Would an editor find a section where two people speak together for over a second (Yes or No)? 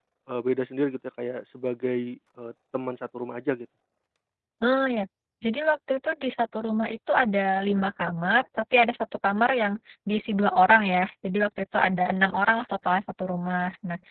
No